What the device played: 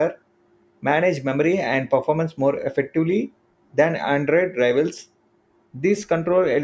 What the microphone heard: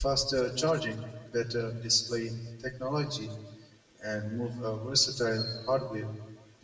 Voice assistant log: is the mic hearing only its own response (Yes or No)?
No